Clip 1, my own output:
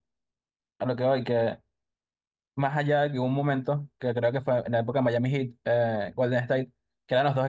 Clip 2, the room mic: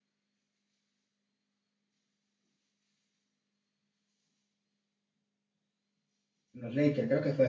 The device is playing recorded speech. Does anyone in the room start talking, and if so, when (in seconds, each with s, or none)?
6.5 s